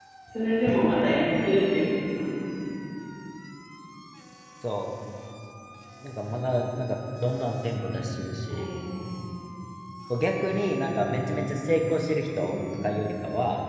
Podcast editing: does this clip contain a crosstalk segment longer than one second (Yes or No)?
No